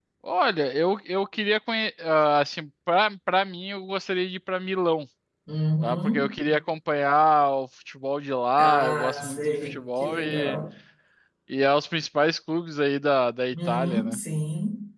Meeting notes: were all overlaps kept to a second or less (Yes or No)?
No